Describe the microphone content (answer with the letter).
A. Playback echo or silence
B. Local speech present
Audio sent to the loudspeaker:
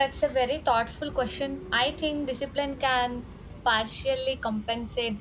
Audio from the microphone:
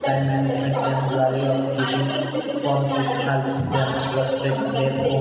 B